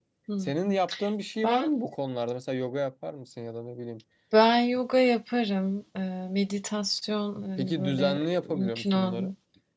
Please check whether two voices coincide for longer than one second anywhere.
Yes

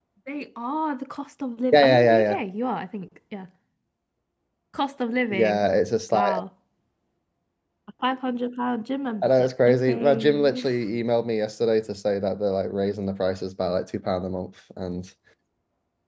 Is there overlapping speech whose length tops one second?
Yes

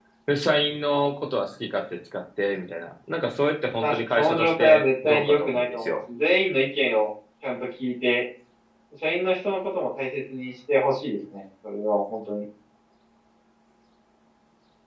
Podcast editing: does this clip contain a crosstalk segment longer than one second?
Yes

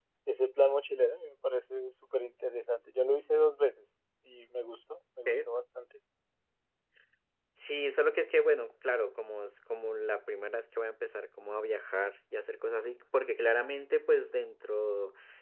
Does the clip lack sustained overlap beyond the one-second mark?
Yes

